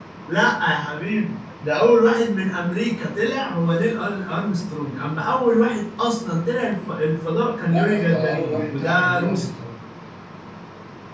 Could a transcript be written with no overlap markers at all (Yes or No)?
No